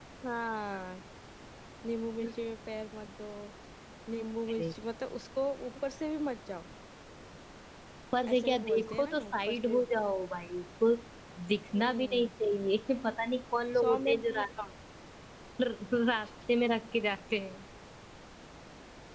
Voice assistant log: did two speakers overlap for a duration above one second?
Yes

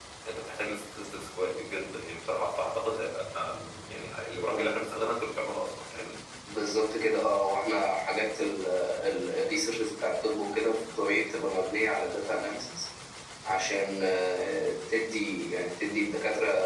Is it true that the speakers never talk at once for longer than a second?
Yes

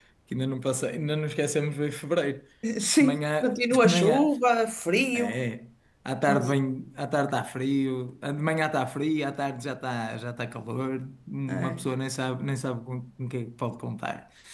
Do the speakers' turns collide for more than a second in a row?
Yes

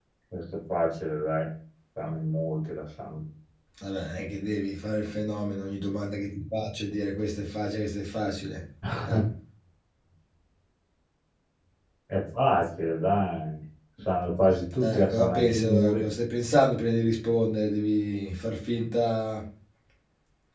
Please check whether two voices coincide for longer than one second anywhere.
Yes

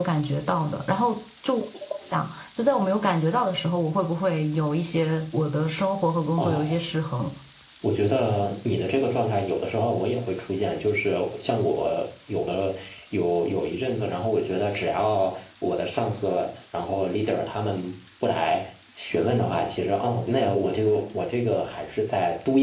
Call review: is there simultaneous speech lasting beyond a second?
No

